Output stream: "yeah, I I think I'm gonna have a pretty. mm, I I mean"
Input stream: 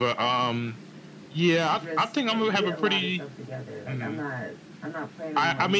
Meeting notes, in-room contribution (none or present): present